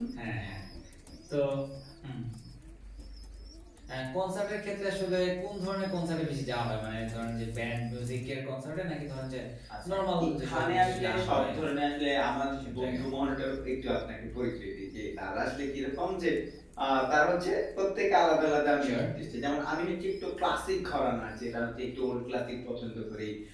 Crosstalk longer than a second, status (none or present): present